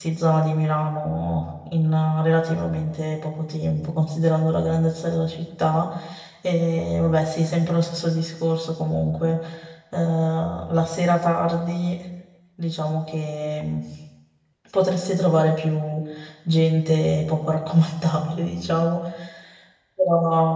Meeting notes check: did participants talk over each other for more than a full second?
No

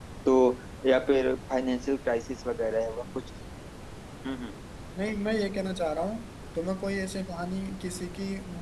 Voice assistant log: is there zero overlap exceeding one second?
Yes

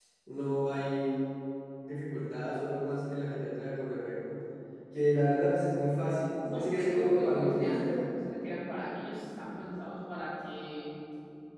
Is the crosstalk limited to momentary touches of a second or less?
No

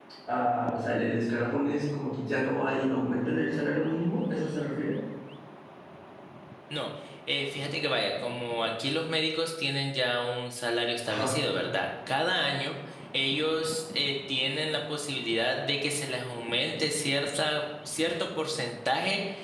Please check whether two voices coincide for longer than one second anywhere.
No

